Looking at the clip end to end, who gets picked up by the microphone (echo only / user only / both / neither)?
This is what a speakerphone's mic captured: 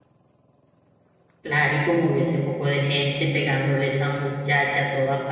user only